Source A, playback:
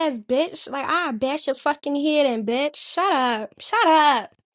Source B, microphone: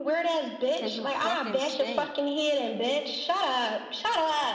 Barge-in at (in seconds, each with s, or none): 0.8 s